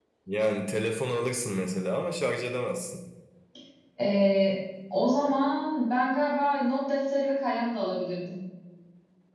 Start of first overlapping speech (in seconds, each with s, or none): none